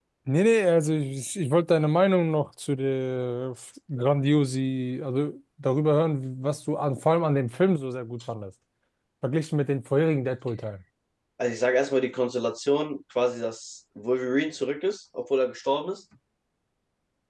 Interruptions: none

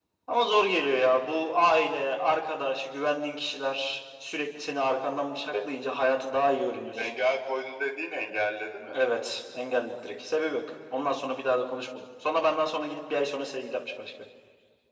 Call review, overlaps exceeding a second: none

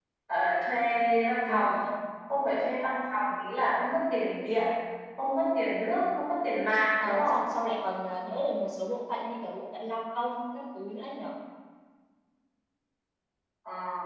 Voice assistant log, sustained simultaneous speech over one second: none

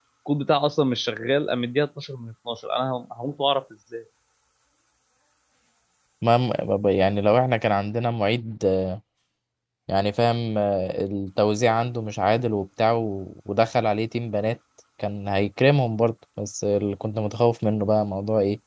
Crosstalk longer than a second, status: none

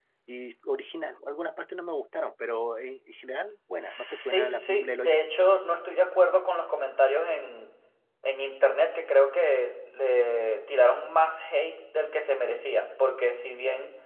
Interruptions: present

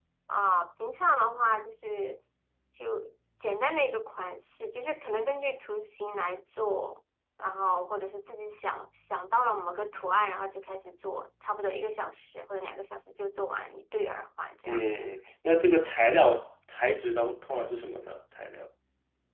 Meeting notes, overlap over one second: none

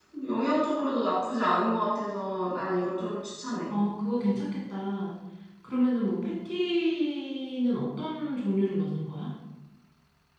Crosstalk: none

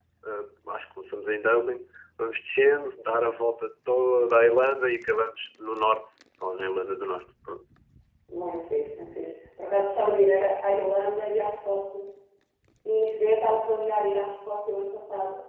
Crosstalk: none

